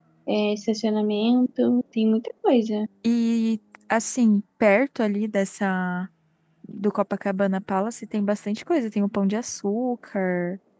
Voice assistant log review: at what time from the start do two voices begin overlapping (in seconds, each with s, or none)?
none